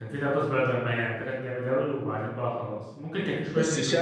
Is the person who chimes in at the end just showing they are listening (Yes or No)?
No